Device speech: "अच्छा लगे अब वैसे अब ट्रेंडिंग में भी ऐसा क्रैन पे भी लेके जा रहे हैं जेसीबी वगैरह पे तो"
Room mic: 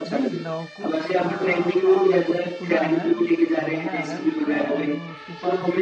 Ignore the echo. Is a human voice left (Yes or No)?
Yes